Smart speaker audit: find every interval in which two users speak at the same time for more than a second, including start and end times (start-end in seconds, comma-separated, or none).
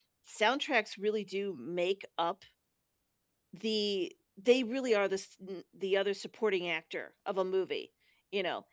none